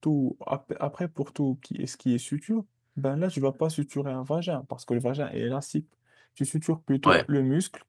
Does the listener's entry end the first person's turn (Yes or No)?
No